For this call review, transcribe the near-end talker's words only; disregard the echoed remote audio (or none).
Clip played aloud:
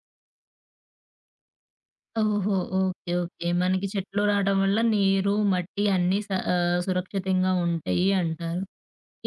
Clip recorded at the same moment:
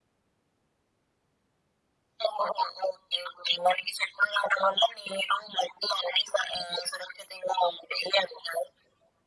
none